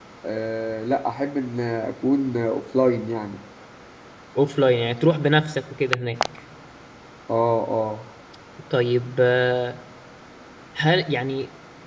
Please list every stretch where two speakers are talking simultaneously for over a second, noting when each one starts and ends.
none

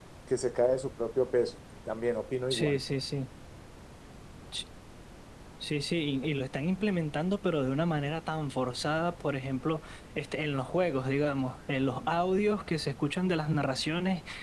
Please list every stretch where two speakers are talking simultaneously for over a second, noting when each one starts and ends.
none

